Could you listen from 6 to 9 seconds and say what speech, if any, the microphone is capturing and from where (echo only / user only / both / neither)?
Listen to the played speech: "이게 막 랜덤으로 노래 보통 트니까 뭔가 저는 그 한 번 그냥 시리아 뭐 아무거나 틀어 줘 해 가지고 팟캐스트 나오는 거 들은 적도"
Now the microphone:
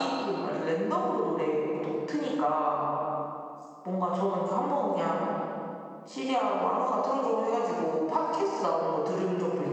echo only